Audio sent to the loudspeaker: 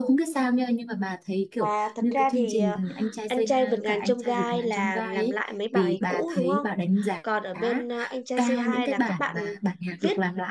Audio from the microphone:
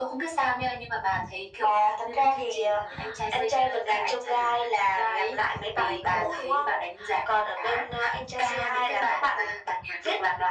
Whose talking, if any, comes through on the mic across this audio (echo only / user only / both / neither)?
echo only